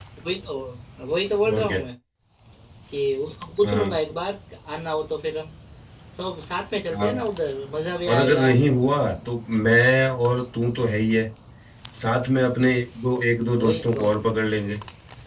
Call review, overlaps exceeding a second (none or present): none